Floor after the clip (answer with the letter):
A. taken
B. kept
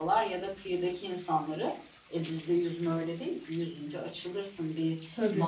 B